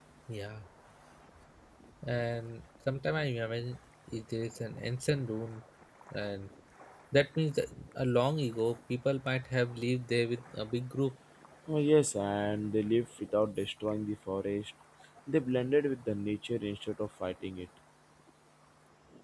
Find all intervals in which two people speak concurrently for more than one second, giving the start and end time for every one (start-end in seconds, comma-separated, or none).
none